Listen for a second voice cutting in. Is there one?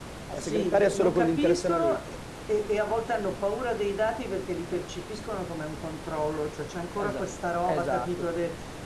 Yes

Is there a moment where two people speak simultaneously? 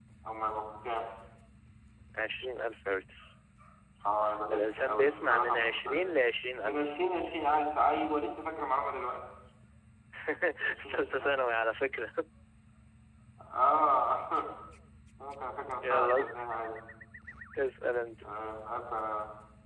Yes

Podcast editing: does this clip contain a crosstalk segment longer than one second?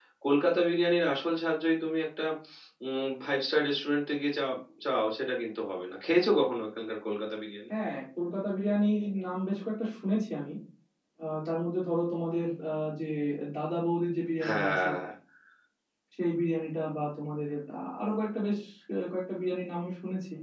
No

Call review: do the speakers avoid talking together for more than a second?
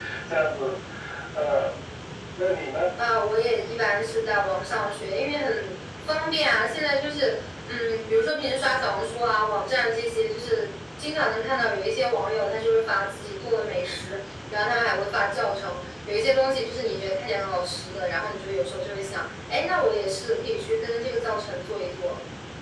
Yes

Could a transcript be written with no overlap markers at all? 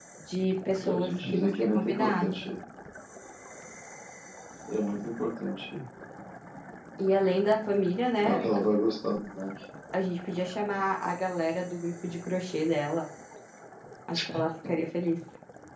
No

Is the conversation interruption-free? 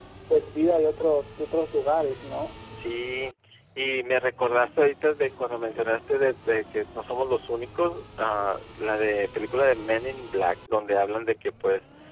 Yes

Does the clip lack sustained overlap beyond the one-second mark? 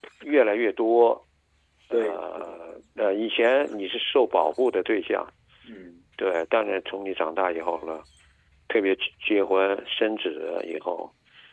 No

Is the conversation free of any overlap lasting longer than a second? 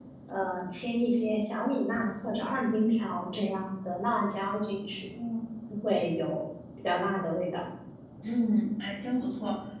Yes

